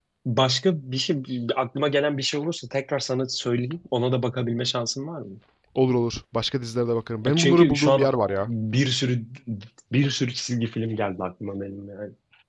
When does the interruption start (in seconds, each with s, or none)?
7.3 s